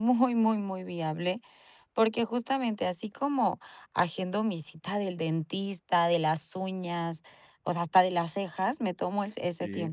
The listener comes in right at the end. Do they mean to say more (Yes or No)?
No